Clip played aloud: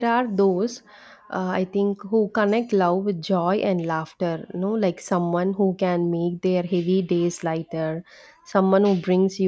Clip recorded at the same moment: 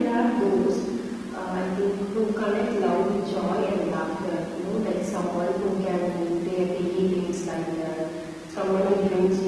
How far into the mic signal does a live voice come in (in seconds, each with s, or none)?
none